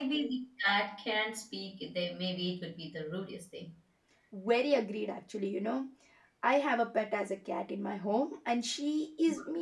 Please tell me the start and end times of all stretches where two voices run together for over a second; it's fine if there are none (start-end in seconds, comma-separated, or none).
none